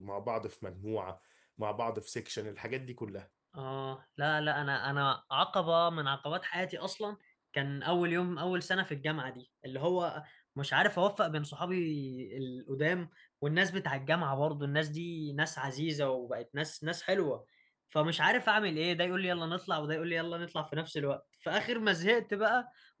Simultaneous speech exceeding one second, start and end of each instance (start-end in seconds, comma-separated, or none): none